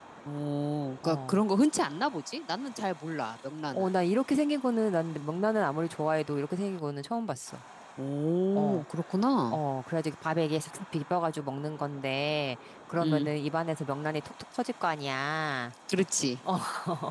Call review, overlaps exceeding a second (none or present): none